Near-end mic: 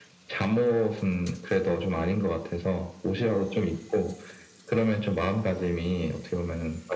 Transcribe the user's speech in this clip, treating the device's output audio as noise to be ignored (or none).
none